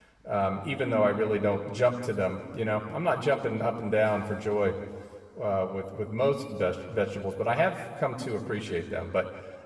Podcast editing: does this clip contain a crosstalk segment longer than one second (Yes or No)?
No